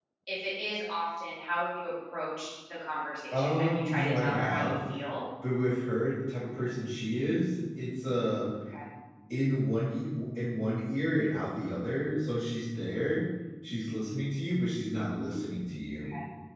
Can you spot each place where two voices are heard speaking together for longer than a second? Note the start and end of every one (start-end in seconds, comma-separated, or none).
3.3-4.8